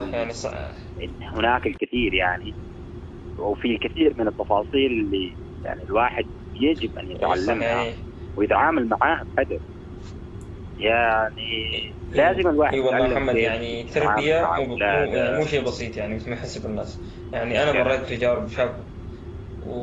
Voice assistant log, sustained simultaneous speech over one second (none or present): present